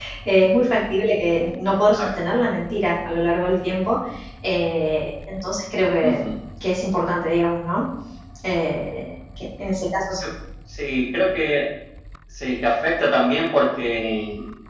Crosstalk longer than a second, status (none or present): none